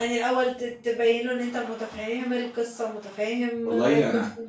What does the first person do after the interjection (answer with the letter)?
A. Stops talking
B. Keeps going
A